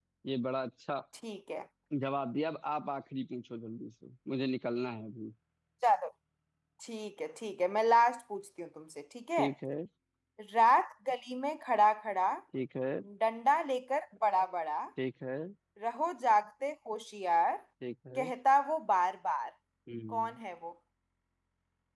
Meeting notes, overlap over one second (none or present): none